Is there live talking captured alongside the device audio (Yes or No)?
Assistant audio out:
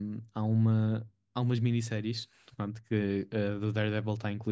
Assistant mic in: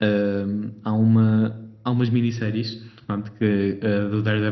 No